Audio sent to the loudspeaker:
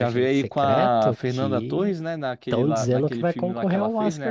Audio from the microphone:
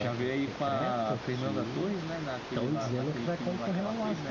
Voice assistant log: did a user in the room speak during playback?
No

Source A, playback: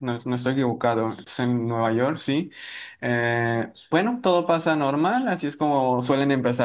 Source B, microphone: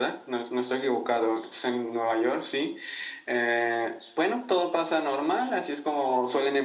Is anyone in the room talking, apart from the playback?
No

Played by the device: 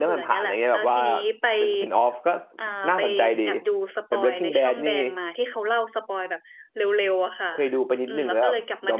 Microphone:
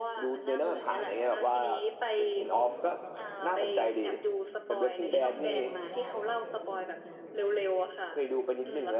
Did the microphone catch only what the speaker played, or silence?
No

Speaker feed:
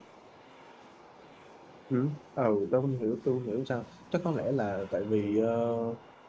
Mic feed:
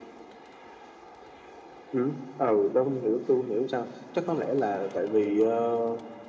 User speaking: No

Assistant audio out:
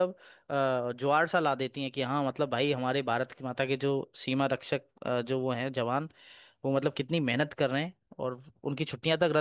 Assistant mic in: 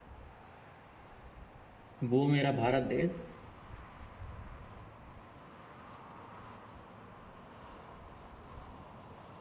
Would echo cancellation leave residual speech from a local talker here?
Yes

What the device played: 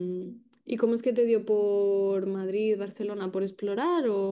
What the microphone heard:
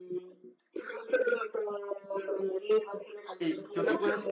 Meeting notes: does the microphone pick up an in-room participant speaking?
Yes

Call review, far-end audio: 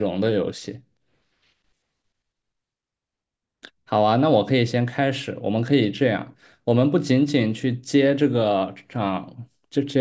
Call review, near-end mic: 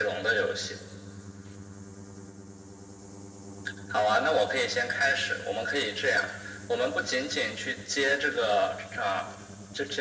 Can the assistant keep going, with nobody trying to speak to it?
Yes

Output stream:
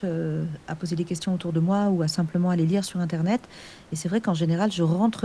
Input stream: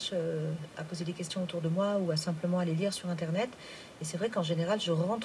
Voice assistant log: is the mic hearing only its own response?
Yes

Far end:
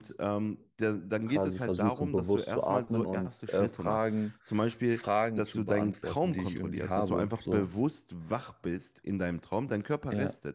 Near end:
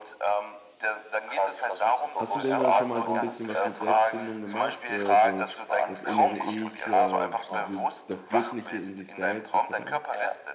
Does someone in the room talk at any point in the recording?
Yes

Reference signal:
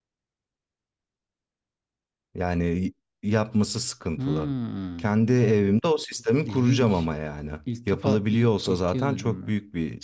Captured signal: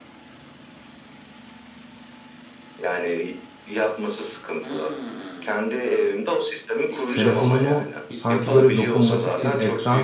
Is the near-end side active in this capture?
Yes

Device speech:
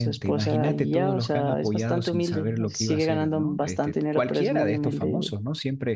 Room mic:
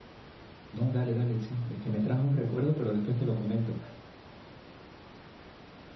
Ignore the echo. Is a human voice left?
Yes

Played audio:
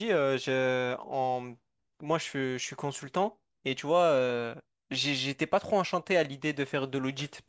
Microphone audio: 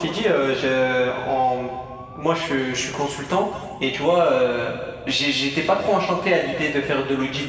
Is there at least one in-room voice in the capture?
No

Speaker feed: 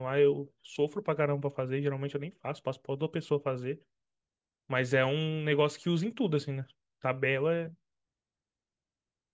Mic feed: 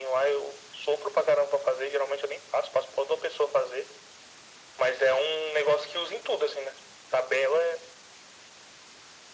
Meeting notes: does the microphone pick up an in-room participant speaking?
No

